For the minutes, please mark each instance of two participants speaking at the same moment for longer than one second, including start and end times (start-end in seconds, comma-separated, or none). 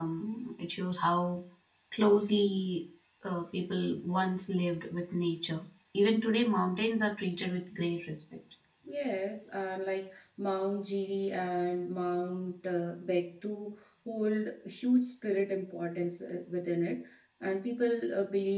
none